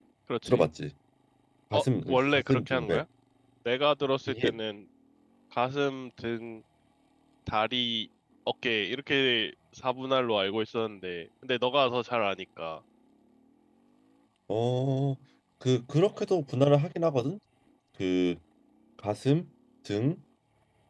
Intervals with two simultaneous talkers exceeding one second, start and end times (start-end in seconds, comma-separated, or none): 1.7-3.0